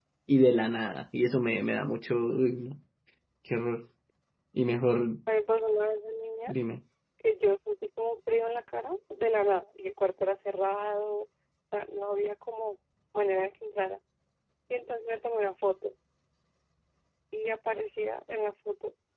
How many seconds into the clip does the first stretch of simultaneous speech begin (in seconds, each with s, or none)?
none